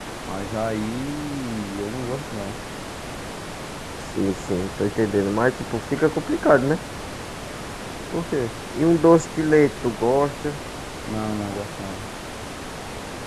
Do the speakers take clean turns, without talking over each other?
Yes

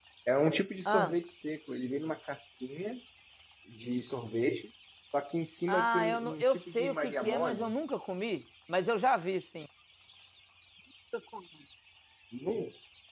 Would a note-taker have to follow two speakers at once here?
Yes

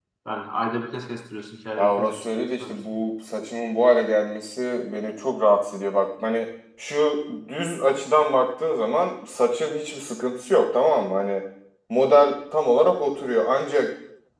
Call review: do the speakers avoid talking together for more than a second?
No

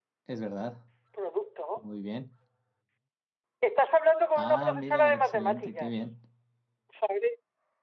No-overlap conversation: No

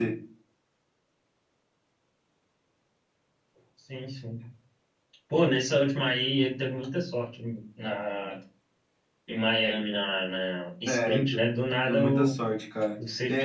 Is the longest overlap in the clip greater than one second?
No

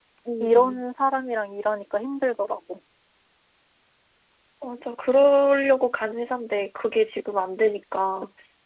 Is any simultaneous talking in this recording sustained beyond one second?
No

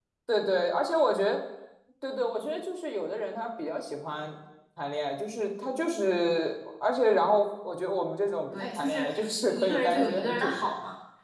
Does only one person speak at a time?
No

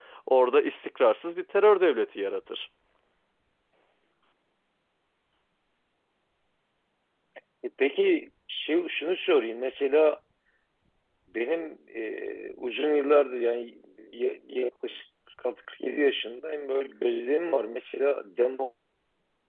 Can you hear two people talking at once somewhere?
No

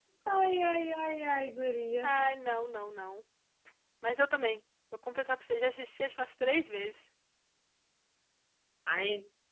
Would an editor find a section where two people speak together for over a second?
No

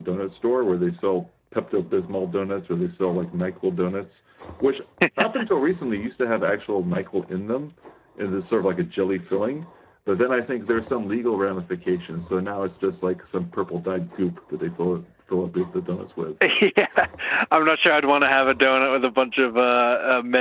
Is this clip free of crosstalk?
Yes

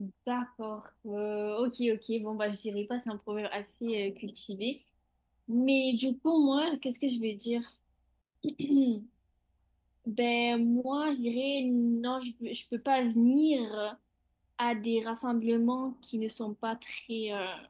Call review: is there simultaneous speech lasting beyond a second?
No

